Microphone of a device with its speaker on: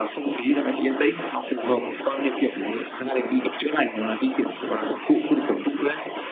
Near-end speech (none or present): none